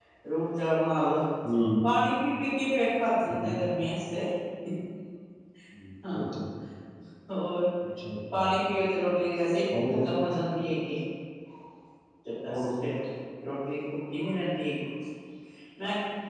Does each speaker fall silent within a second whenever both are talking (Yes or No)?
Yes